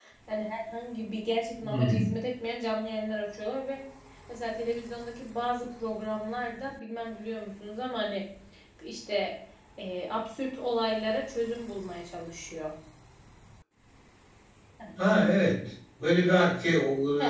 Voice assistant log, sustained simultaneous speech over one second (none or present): none